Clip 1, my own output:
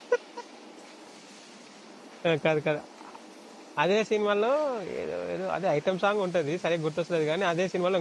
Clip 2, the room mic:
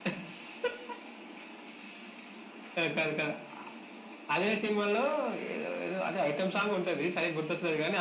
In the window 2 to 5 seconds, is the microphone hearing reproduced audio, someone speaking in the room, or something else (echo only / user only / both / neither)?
echo only